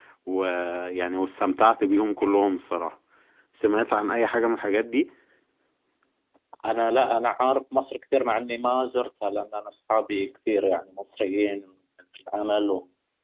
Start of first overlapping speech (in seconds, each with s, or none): none